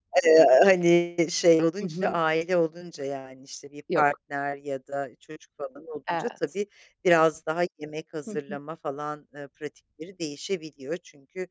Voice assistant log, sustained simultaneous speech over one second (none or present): none